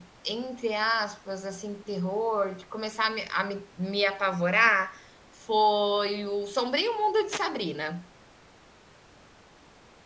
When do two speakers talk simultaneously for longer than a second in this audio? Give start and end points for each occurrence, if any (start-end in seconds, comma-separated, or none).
none